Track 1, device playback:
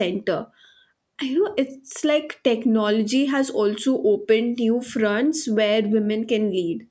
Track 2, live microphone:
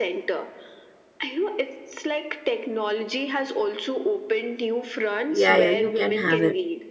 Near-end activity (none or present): present